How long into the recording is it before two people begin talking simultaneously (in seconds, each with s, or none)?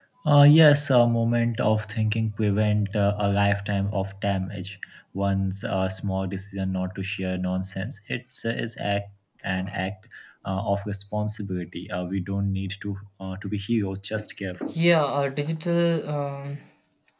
none